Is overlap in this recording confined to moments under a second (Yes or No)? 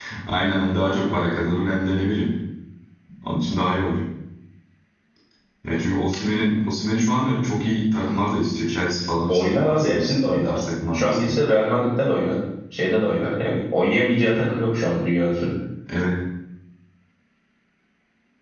No